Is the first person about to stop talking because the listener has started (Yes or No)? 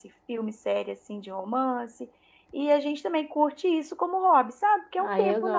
Yes